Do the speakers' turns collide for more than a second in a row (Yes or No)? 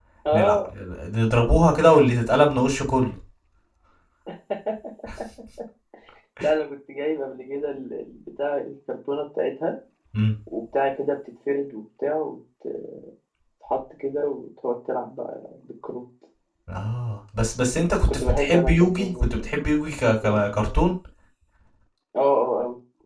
Yes